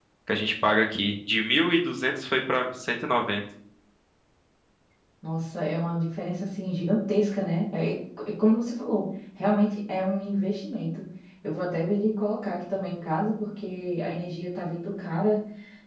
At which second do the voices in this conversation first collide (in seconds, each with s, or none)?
none